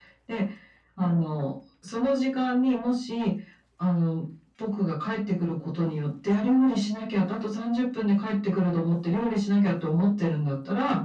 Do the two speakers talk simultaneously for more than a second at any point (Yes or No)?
No